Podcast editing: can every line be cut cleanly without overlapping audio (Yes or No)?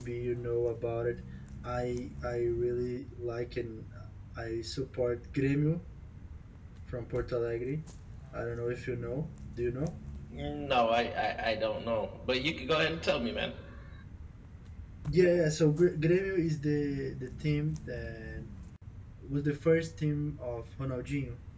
Yes